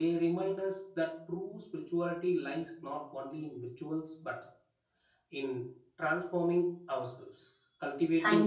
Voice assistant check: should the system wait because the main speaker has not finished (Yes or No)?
Yes